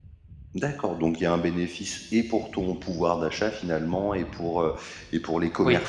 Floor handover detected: No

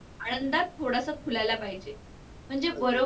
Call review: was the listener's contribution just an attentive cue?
Yes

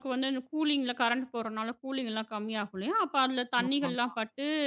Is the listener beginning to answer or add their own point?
No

